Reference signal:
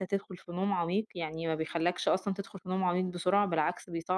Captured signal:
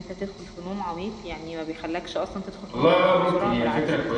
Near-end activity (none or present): present